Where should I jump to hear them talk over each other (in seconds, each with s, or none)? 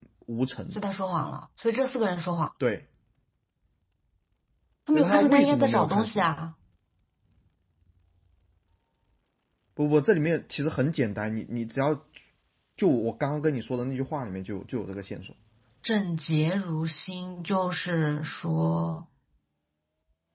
4.9 s